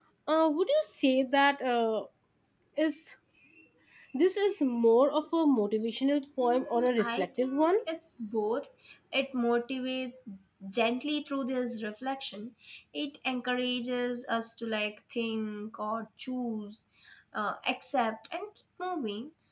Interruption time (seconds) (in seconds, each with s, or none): 6.4 s